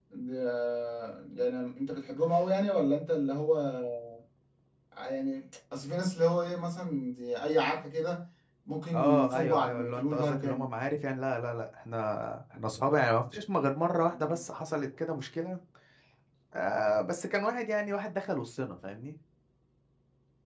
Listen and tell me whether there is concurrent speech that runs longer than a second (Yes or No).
Yes